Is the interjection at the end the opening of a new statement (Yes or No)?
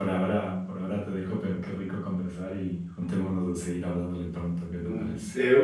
Yes